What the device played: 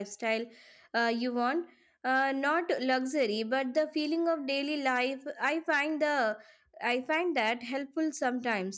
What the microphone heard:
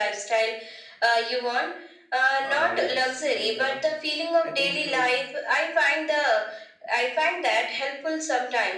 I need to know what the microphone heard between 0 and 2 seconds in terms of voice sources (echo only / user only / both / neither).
echo only